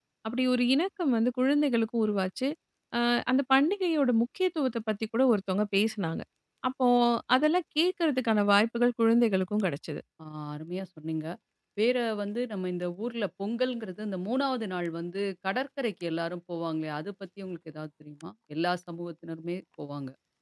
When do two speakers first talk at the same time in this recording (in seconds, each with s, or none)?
none